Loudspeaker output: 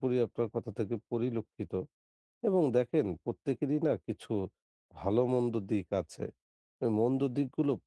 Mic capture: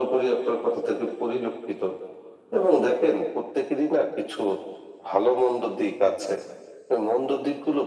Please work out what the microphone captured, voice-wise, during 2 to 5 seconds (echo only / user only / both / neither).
echo only